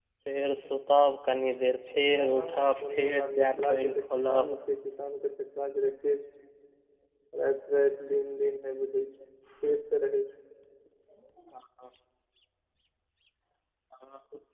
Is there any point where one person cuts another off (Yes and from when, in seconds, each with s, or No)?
Yes, from 2.2 s